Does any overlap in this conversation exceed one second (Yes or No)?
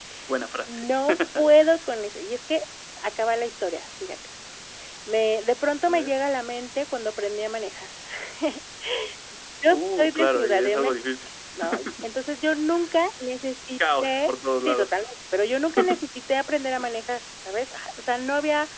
Yes